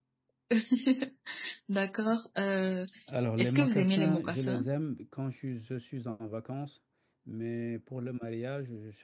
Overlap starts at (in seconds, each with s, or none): 3.4 s